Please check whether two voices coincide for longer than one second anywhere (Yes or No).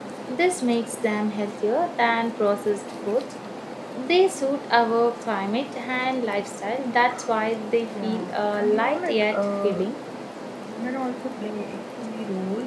Yes